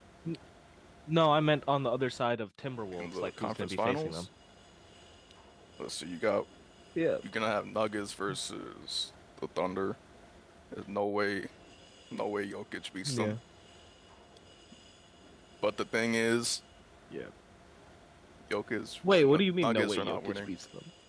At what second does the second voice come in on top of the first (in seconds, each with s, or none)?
3.0 s